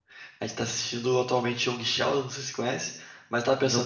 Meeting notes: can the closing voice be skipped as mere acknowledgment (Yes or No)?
Yes